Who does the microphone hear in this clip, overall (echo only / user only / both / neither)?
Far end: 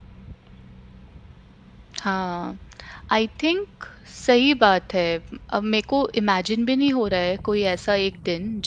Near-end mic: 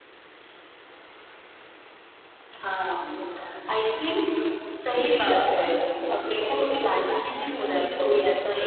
echo only